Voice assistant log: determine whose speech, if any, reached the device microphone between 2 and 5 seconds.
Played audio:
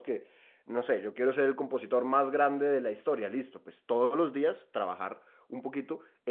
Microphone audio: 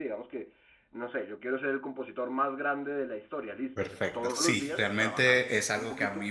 both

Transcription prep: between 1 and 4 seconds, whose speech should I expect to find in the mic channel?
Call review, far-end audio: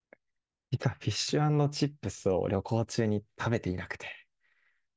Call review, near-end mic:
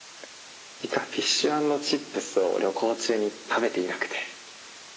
echo only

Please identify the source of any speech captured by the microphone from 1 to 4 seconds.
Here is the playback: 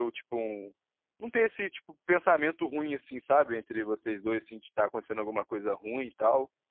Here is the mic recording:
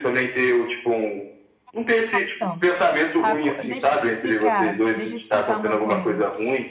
both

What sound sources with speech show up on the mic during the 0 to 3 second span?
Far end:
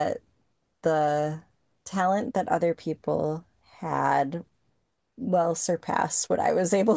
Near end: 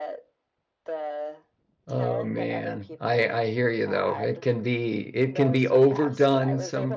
both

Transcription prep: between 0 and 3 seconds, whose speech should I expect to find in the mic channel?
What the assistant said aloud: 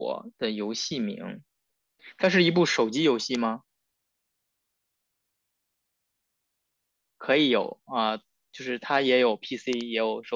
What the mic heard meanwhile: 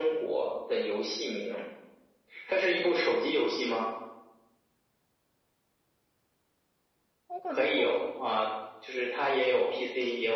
echo only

